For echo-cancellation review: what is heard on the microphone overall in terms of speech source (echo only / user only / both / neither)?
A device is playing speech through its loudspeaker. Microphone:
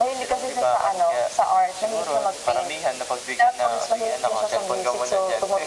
echo only